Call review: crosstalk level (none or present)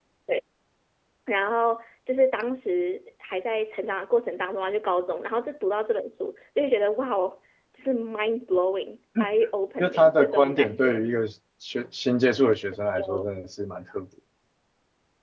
present